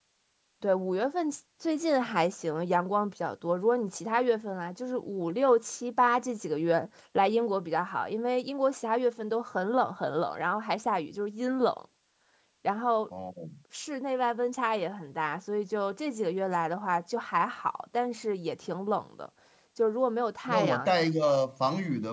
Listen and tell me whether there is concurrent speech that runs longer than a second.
No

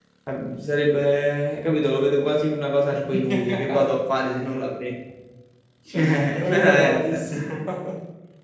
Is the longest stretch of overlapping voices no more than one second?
No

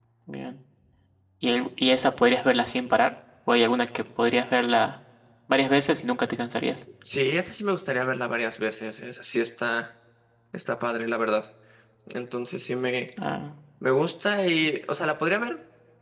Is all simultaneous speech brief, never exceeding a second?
Yes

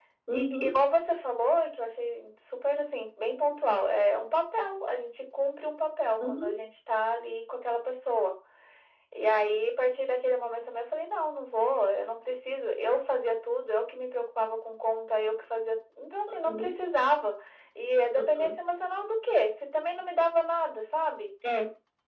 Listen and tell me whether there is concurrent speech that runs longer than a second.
No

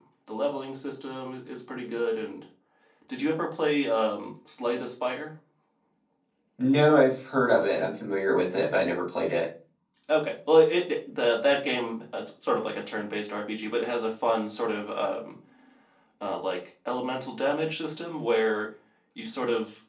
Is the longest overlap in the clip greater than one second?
No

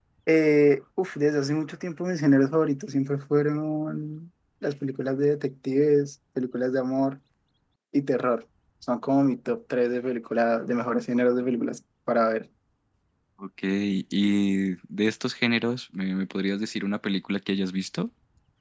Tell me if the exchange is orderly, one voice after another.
Yes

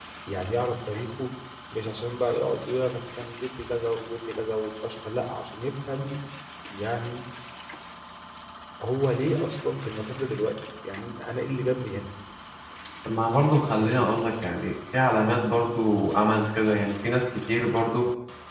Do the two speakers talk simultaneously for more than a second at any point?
No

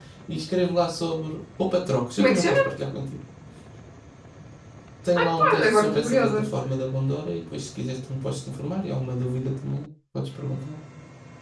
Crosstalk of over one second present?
Yes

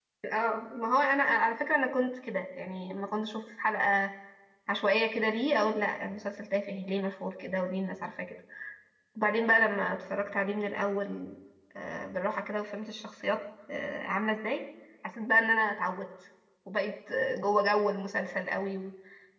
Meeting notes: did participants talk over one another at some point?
No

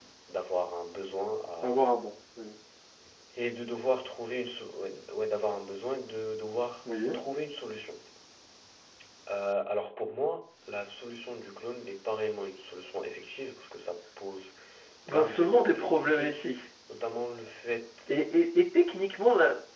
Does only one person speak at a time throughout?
No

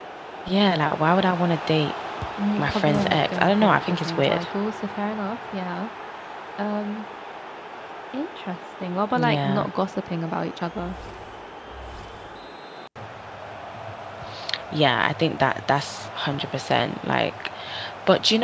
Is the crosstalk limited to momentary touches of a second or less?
No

